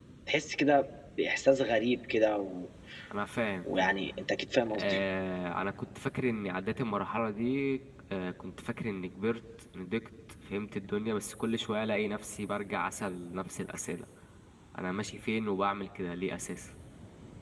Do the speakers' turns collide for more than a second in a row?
No

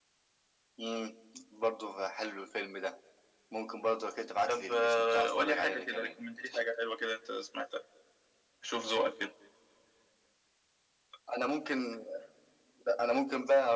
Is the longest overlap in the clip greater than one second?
Yes, from 4.5 s

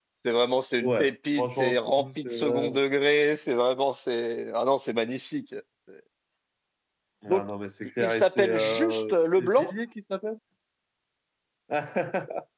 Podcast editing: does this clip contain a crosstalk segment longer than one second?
Yes, from 0.8 s

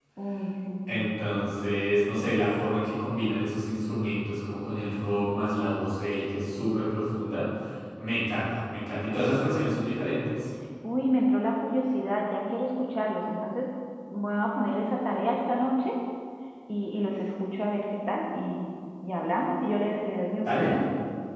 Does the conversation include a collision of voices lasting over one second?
No

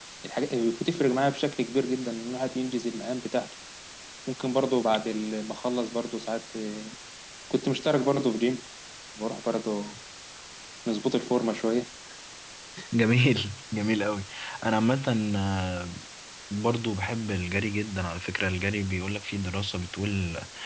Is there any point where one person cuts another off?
No

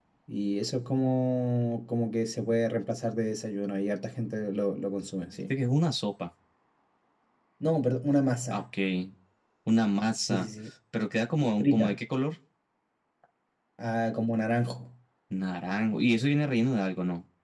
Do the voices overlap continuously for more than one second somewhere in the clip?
No

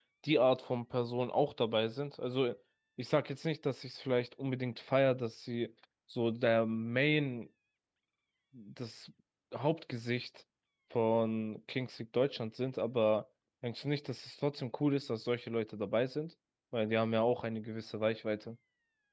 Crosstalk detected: No

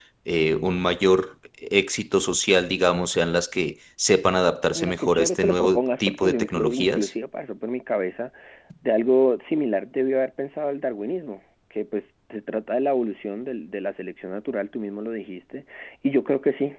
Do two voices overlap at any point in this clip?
Yes, from 4.8 s

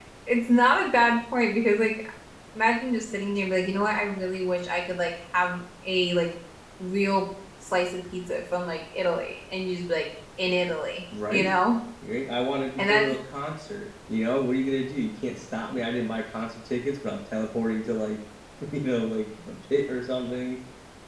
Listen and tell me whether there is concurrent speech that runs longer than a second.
No

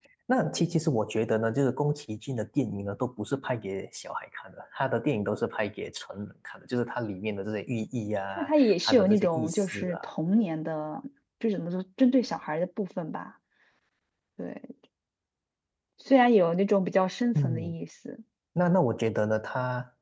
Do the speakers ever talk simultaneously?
Yes, from 8.3 s

